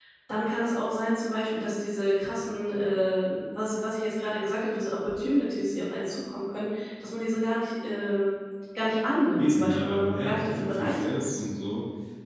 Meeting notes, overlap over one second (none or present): present